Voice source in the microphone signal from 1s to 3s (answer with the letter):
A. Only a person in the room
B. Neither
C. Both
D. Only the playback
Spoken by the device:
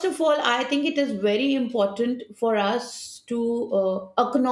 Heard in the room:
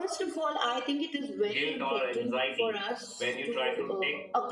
C